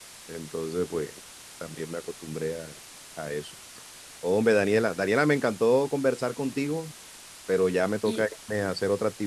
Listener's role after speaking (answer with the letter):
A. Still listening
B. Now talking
A